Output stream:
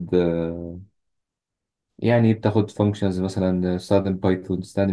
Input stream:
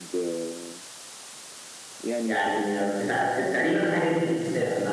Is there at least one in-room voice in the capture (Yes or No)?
Yes